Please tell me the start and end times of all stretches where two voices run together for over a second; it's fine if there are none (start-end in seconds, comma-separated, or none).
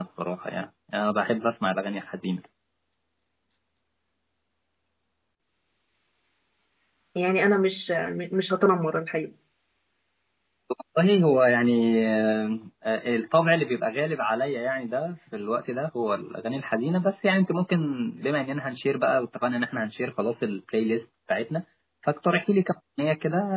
none